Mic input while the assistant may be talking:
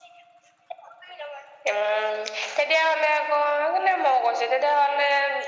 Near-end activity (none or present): none